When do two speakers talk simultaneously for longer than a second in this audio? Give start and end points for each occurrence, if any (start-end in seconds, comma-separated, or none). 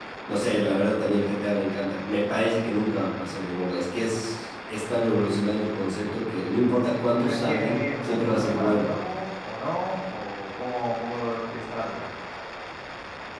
7.0-8.9